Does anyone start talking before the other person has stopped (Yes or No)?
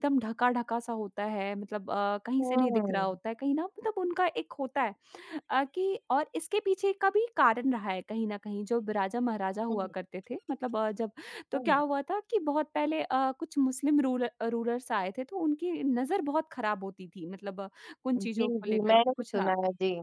Yes